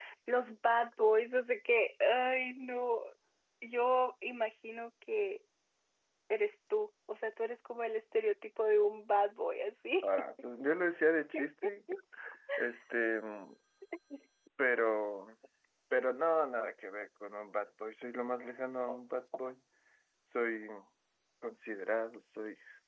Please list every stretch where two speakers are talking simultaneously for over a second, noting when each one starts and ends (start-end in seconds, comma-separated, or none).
none